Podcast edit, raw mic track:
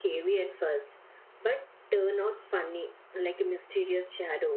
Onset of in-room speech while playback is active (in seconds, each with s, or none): none